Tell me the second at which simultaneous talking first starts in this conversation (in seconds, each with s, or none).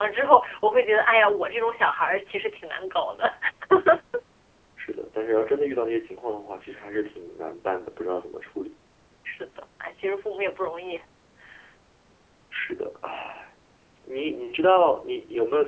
none